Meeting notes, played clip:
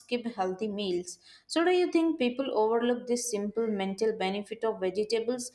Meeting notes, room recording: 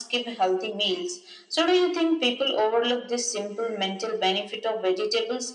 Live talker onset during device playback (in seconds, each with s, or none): none